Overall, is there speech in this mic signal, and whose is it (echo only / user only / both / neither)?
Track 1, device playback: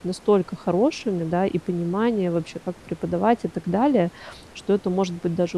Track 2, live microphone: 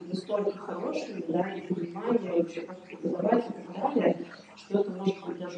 echo only